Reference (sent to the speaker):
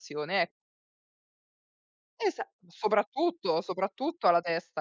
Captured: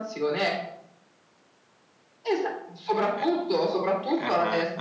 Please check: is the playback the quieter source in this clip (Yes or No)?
No